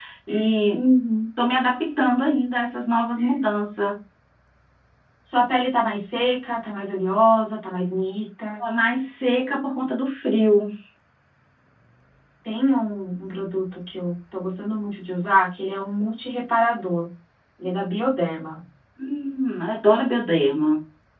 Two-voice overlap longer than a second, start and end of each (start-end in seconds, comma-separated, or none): none